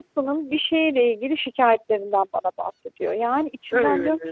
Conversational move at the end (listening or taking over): listening